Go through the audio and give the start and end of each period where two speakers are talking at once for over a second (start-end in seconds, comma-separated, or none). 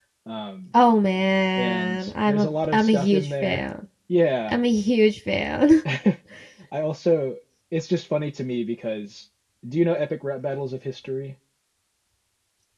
1.6-3.6